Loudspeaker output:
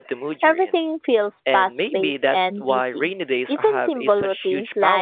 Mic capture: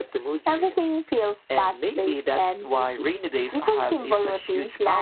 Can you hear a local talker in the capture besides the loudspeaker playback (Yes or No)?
No